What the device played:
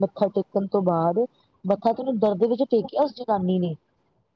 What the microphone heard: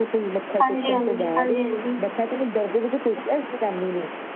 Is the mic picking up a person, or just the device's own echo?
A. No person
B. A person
B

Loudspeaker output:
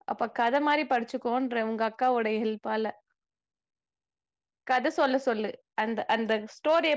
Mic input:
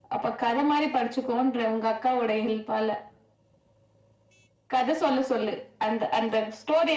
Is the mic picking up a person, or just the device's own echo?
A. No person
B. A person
A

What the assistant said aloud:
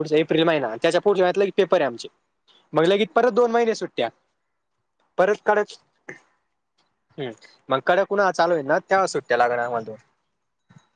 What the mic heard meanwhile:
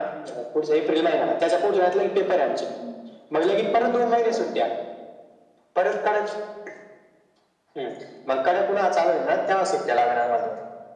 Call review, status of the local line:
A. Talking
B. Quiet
A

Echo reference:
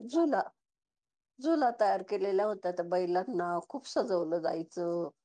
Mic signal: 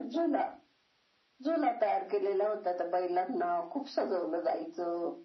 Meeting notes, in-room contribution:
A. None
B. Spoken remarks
A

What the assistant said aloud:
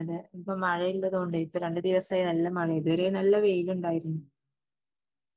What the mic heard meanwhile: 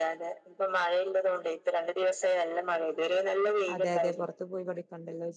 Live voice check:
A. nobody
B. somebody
B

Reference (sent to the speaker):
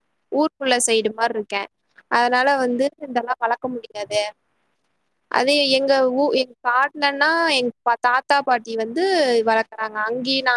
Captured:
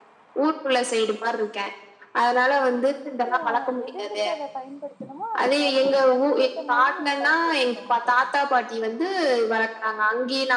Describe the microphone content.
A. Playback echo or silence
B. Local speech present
B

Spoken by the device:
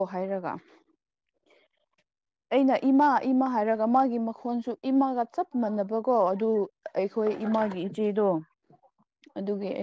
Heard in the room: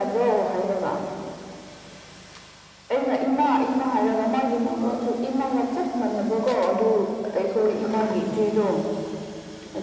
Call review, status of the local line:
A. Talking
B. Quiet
A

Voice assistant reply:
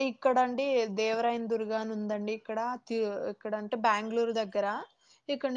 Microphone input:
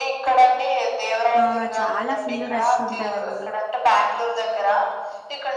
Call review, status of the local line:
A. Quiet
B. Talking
B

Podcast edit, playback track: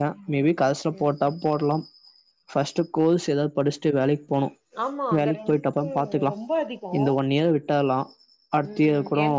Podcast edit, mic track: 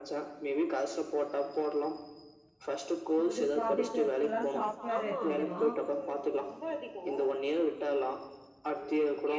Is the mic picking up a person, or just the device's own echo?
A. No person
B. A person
B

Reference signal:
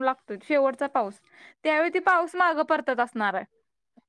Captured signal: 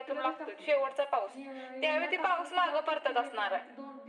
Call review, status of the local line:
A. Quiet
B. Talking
B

